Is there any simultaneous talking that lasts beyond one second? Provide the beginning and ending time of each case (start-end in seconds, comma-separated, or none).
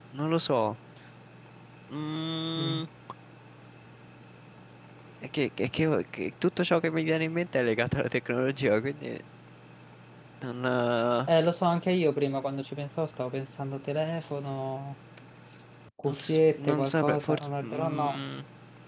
16.1-18.2